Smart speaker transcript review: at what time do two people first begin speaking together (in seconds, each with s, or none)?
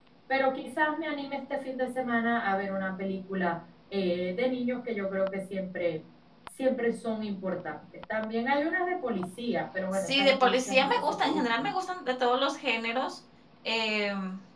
9.9 s